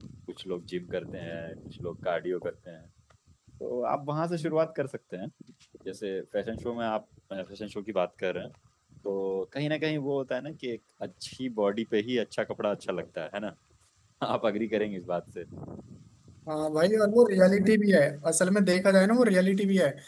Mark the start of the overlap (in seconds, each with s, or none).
none